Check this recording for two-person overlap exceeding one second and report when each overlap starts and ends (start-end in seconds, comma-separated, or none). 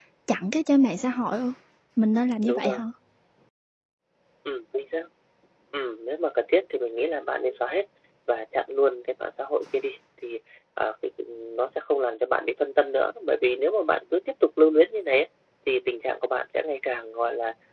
none